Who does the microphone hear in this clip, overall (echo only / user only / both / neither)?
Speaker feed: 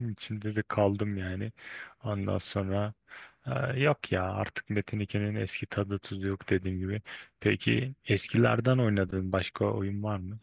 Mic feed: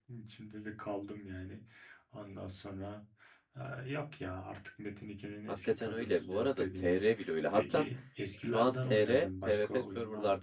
both